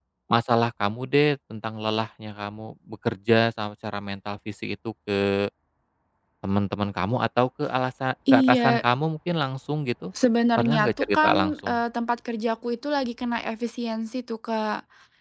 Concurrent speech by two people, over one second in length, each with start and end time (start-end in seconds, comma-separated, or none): 10.6-11.8